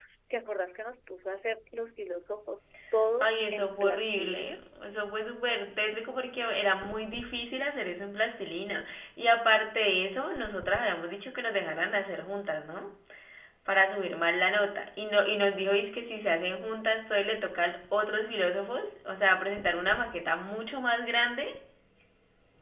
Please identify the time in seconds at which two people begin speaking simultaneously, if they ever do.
3.2 s

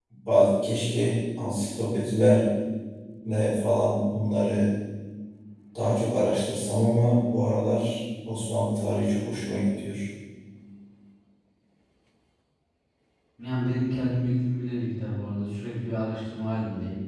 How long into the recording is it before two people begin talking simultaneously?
none

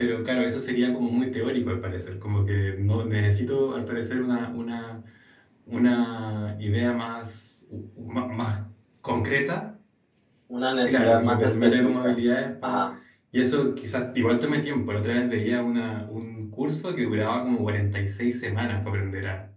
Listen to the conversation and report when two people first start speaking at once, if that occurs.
10.8 s

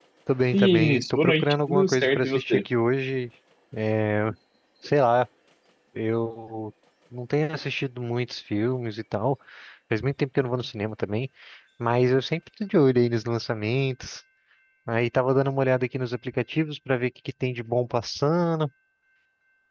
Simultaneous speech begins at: 0.5 s

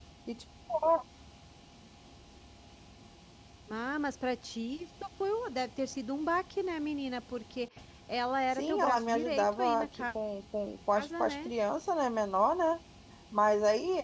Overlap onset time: 8.6 s

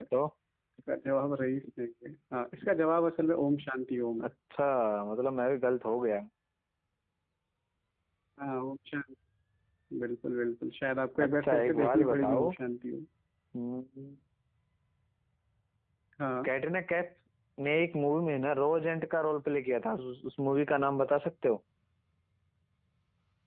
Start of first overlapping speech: 11.2 s

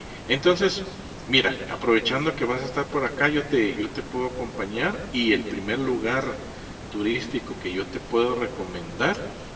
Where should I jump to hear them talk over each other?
none

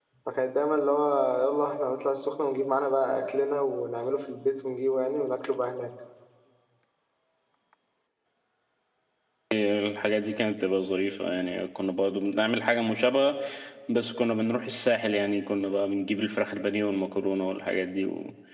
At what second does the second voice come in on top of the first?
none

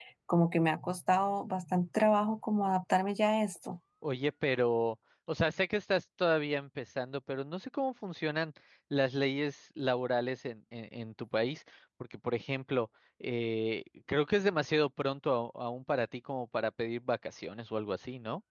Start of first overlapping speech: none

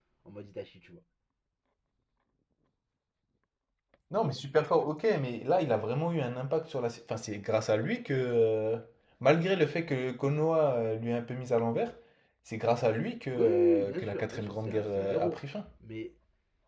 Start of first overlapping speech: 13.3 s

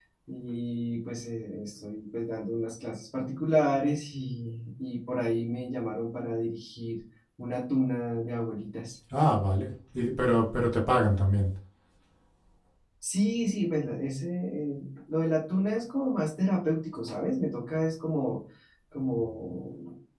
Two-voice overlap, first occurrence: none

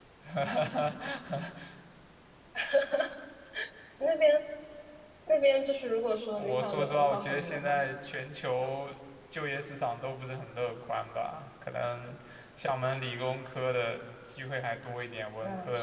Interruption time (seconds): 6.4 s

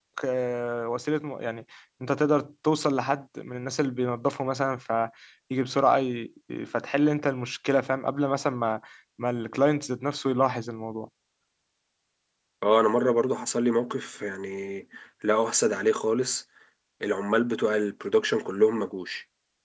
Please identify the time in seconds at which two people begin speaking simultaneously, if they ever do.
none

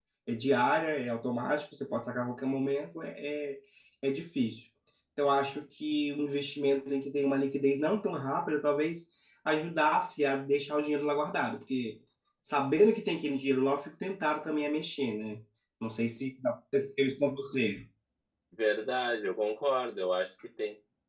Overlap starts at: none

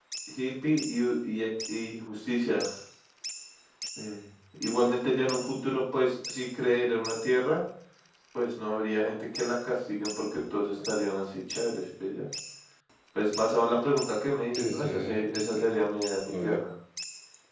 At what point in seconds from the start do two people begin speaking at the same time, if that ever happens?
14.6 s

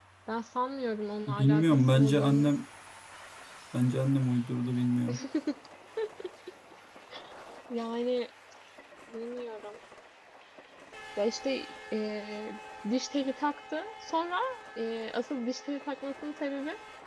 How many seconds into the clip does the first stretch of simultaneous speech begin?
1.3 s

